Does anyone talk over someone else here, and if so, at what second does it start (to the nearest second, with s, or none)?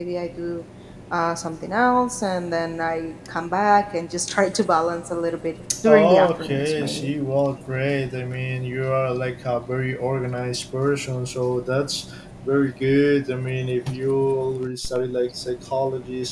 6 s